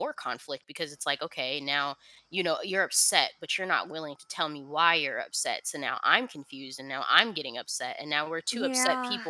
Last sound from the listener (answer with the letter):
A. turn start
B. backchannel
B